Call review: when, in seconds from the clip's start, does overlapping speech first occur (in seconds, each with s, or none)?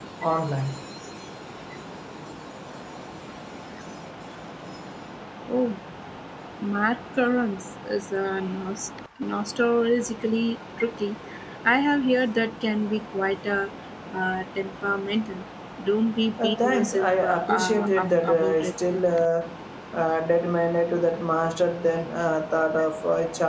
16.4 s